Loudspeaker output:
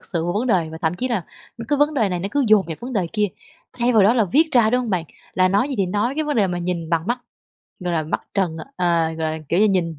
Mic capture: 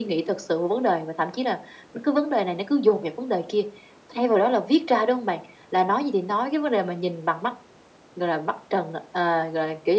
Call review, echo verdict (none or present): present